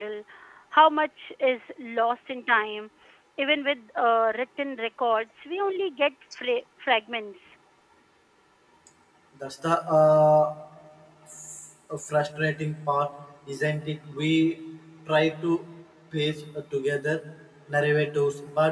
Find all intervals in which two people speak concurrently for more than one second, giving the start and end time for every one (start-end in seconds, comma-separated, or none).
none